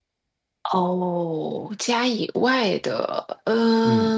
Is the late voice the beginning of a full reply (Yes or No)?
Yes